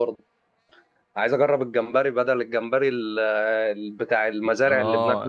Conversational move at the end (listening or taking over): taking over